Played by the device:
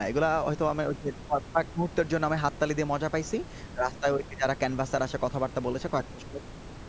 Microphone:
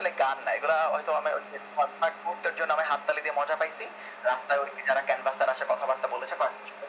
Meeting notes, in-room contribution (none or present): none